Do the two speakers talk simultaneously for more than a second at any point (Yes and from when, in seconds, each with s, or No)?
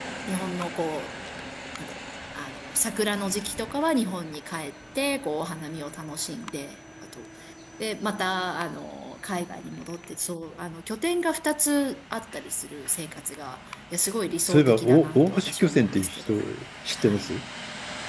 Yes, from 14.4 s